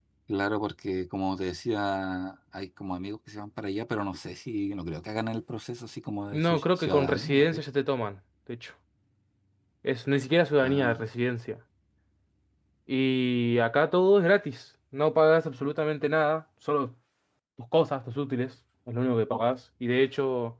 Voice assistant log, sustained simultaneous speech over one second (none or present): present